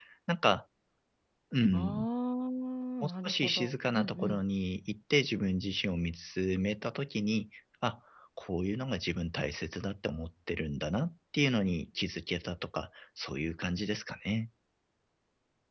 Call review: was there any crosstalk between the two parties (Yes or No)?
Yes